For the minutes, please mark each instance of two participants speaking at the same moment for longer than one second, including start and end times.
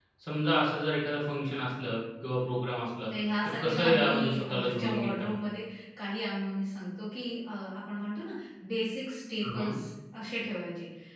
3.6-5.3

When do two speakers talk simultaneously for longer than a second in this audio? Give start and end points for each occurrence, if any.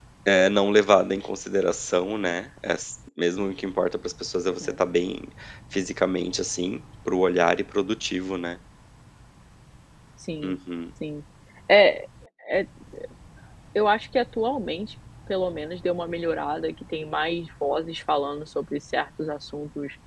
none

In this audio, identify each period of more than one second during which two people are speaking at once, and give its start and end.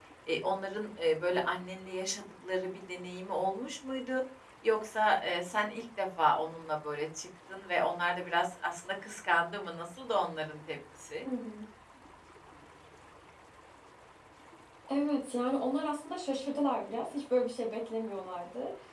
none

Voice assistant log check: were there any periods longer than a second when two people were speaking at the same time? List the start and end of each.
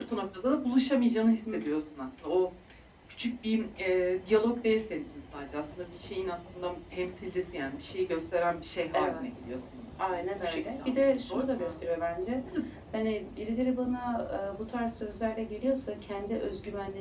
10.1-11.8

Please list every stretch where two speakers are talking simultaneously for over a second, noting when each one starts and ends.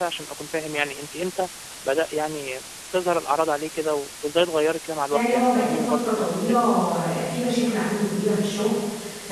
5.1-6.5

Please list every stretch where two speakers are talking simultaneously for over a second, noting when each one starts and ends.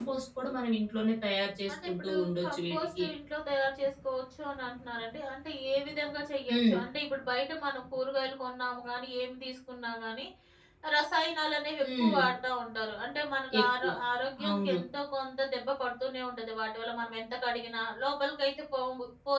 1.7-3.0

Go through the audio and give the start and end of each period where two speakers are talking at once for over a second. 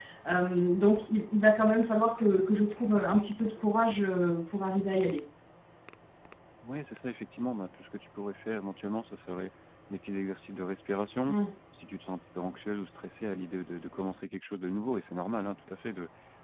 none

